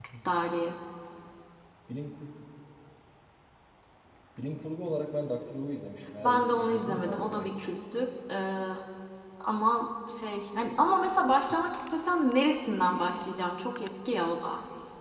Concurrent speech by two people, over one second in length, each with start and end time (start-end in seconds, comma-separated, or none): 6.2-7.7